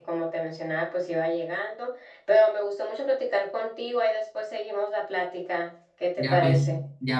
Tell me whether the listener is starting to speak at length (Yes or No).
Yes